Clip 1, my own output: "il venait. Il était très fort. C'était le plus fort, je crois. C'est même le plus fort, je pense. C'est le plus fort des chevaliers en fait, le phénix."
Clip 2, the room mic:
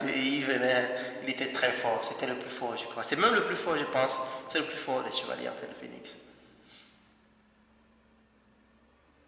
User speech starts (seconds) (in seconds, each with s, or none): none